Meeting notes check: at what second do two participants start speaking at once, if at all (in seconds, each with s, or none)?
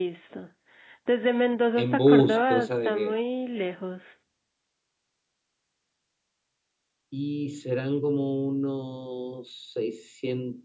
1.8 s